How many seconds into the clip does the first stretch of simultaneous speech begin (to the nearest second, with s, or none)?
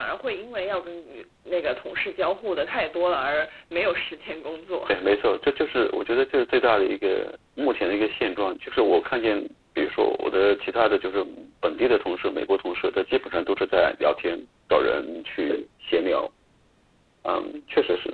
none